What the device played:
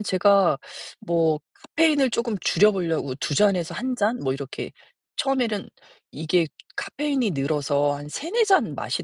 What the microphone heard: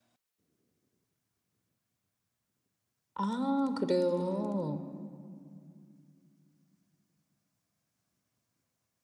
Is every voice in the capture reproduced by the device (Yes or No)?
No